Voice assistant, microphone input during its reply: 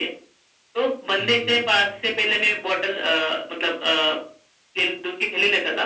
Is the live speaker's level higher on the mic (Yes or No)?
No